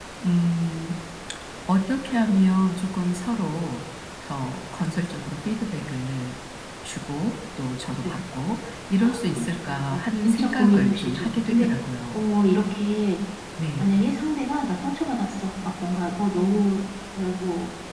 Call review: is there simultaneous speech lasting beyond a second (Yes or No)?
Yes